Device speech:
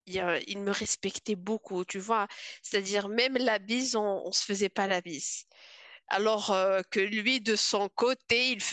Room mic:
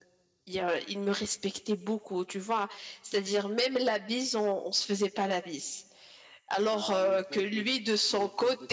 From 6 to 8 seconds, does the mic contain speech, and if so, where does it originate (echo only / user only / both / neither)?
both